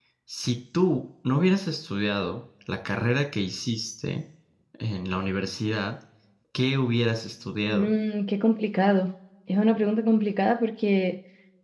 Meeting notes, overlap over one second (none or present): none